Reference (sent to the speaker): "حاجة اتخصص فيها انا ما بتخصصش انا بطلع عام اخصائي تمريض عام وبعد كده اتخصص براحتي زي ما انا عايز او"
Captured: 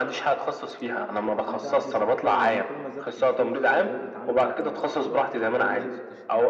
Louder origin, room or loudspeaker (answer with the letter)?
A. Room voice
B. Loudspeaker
B